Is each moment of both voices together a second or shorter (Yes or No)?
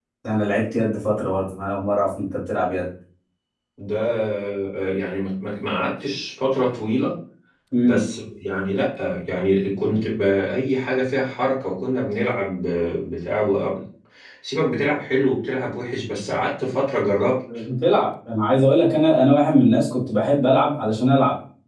Yes